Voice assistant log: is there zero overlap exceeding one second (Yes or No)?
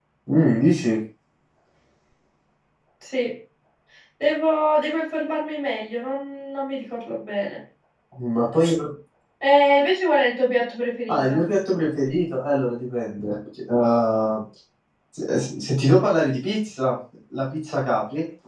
Yes